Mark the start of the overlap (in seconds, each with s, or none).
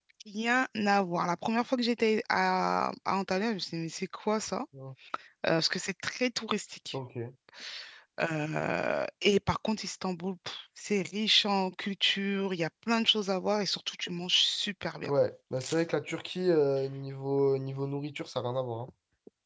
none